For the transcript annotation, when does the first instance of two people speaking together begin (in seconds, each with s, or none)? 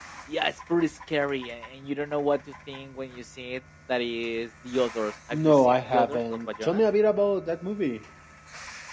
5.3 s